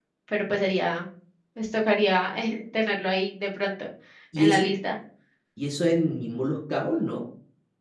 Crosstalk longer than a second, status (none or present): none